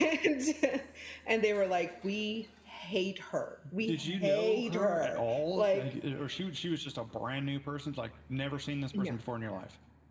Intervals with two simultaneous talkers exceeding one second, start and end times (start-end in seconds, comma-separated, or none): 3.9-5.9